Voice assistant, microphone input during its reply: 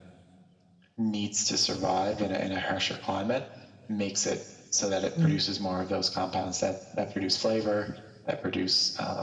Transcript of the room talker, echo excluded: Mhm.

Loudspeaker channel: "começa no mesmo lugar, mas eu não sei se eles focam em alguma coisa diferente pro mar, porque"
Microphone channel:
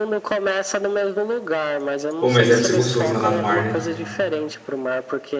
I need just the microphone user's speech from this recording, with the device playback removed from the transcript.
Bom, mas deve ser gostoso nadar no mar, né?

